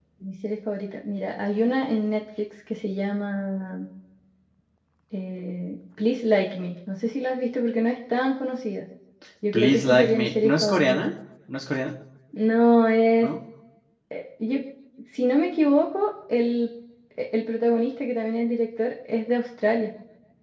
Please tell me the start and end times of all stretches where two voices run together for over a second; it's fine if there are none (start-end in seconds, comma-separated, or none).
9.5-11.1